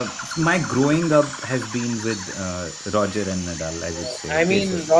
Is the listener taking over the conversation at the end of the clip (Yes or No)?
Yes